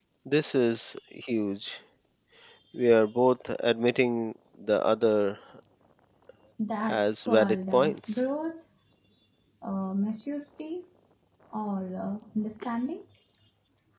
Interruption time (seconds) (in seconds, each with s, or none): 6.8 s